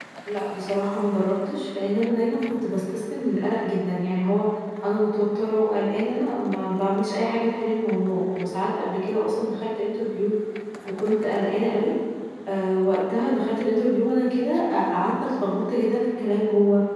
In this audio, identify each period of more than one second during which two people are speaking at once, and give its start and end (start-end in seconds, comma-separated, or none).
none